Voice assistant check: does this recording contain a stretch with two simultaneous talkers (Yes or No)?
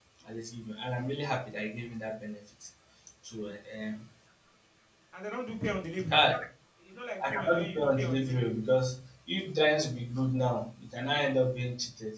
Yes